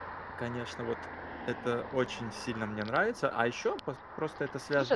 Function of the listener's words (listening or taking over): taking over